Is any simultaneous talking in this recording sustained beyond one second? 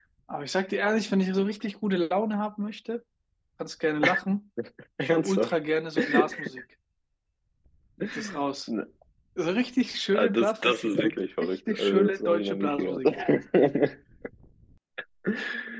Yes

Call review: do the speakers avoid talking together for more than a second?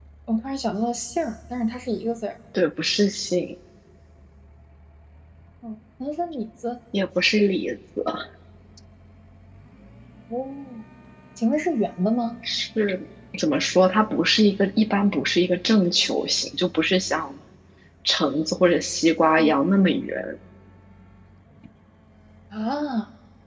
Yes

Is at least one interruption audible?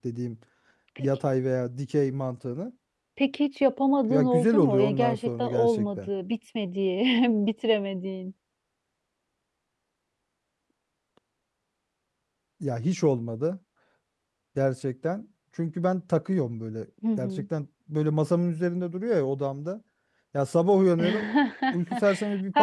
Yes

